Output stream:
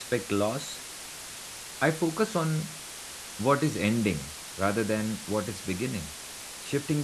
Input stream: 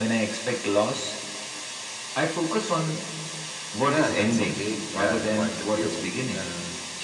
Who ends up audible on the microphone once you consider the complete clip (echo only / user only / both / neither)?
both